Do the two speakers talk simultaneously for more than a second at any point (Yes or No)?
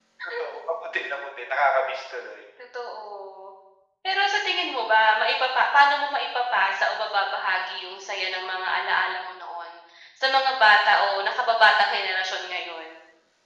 No